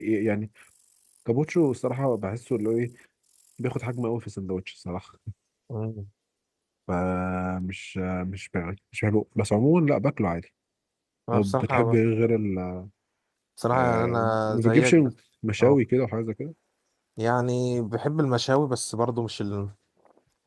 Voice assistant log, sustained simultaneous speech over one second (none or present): present